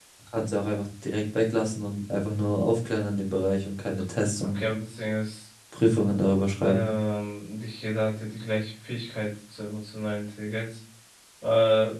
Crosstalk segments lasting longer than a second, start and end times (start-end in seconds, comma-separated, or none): none